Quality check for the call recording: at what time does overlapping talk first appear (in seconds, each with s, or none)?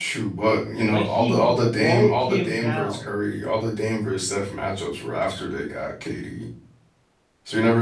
0.9 s